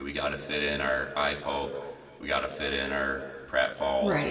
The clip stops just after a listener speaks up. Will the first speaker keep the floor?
No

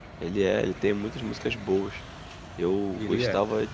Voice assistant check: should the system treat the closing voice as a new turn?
No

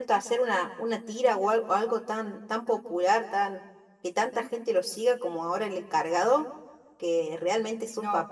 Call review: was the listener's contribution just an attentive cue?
Yes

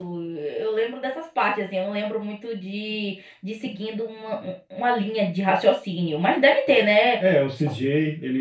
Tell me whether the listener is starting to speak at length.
Yes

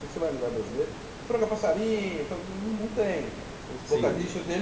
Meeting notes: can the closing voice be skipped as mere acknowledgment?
Yes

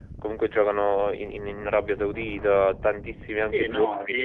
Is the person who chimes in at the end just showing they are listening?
No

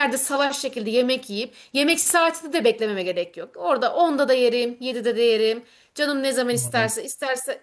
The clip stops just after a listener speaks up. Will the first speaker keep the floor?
Yes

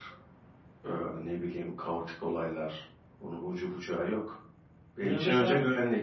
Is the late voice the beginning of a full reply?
No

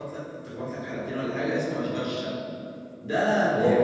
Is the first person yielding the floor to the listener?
Yes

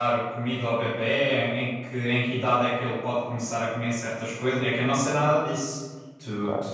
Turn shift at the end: Yes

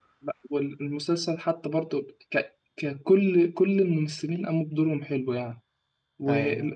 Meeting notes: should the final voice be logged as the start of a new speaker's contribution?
No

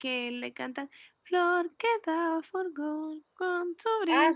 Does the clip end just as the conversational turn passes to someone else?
Yes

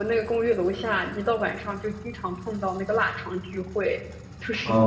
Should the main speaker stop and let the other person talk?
Yes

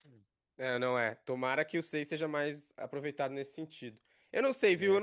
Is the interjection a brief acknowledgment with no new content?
Yes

